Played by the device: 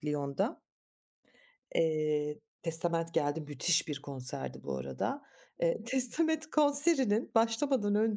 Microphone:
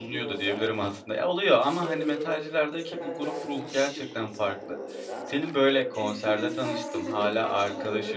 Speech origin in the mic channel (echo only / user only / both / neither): both